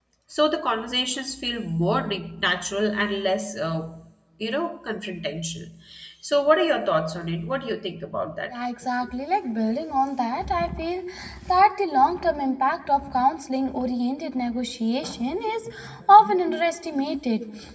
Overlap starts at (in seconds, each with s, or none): none